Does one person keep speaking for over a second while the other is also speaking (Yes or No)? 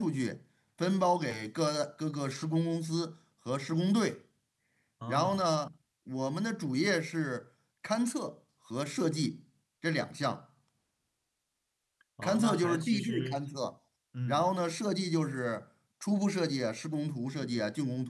Yes